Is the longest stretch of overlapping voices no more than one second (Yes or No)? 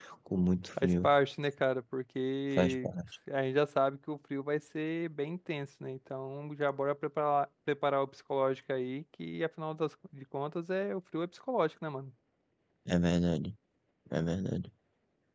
Yes